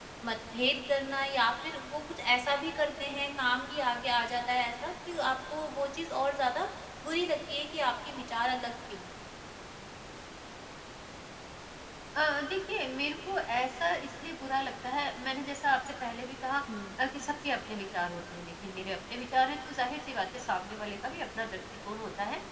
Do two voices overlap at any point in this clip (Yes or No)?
No